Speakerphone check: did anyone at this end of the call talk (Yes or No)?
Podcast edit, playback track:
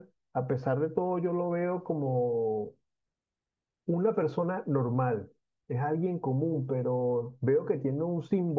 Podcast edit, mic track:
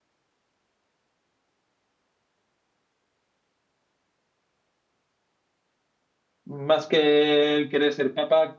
Yes